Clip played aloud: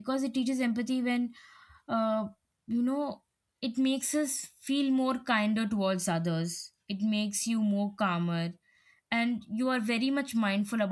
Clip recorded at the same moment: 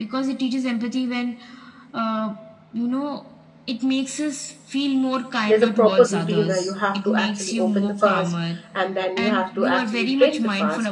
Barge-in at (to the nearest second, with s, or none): 5 s